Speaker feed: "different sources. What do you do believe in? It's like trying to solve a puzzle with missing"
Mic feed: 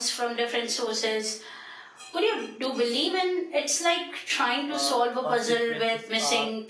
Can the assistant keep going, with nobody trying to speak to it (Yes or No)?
No